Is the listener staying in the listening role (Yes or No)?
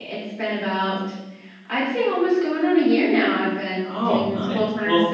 No